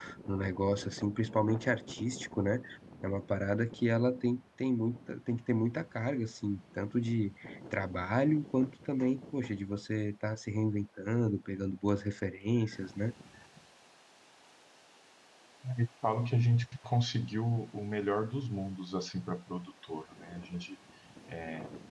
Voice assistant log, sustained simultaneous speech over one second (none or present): none